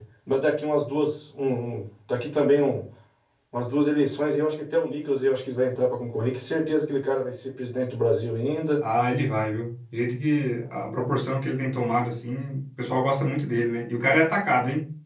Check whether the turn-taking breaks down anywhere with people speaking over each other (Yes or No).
No